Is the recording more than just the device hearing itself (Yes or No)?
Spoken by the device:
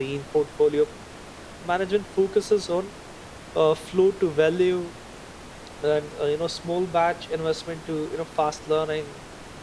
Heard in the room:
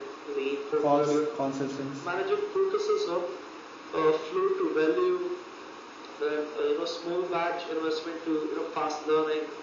Yes